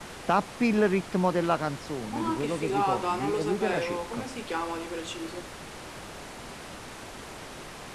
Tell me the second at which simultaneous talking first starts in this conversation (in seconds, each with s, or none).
2.1 s